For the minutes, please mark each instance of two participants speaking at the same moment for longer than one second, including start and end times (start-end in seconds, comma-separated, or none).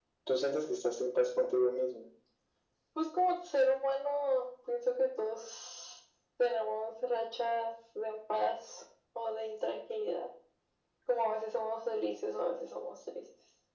none